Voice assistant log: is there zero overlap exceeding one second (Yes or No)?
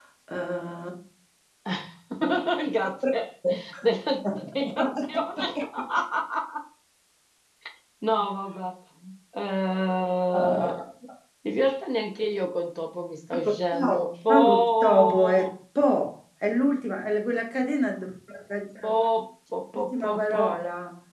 No